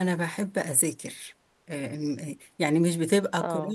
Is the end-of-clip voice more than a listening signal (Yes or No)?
No